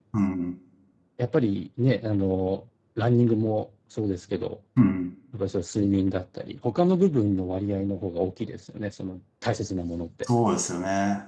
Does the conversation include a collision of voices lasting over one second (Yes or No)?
No